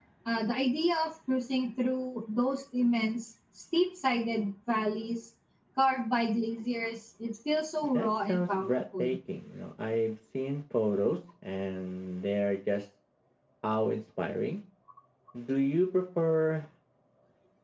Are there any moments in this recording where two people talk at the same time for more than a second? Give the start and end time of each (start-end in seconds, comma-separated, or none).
7.8-9.1